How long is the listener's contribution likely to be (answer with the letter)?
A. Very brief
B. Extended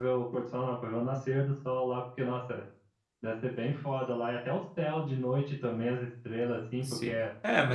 B